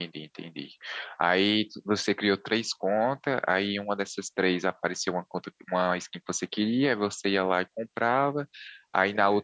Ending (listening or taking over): listening